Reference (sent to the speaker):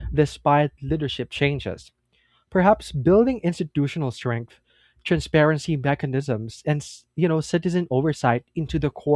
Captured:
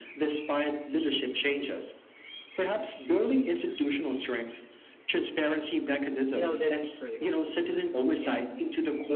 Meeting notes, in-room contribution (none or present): present